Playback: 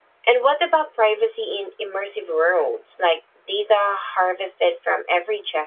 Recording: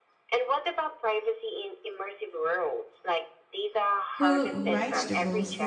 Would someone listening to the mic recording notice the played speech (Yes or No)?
Yes